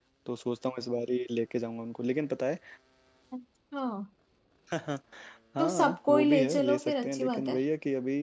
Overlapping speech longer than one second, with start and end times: 5.6-7.6

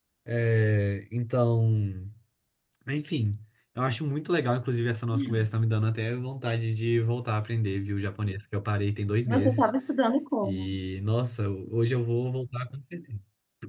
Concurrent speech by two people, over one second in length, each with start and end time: none

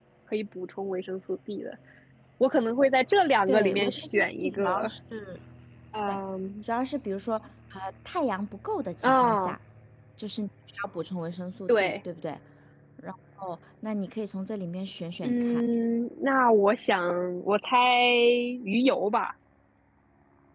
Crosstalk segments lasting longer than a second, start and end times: 3.5-4.9

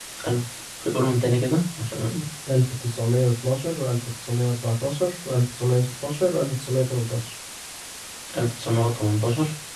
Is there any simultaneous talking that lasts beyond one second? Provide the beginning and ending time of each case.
none

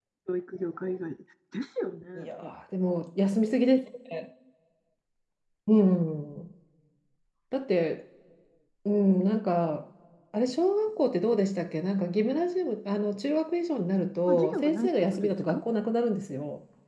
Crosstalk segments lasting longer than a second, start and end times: 14.3-15.6

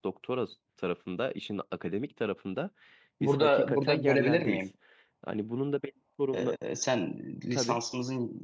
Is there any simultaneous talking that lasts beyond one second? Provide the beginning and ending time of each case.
3.2-4.6

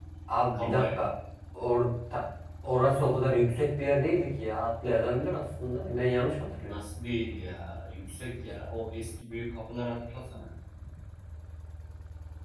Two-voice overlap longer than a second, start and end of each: none

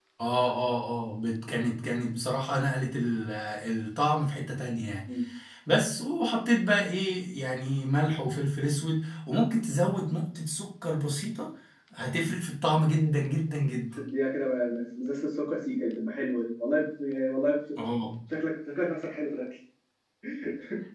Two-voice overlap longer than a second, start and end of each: none

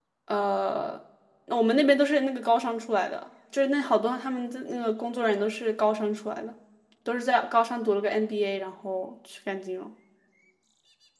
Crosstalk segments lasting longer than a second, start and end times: none

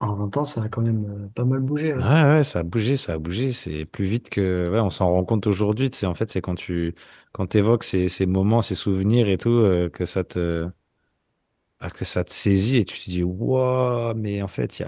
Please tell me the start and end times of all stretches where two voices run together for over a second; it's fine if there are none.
none

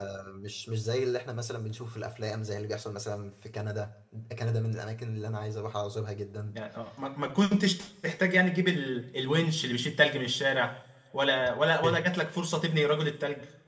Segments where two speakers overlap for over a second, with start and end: none

